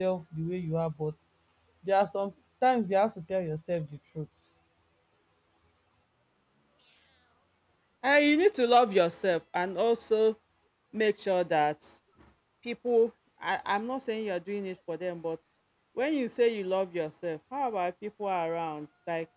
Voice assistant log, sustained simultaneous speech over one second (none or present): none